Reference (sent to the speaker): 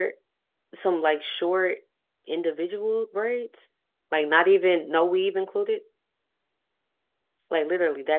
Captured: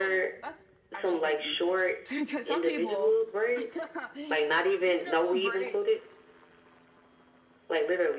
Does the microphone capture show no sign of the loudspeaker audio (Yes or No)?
No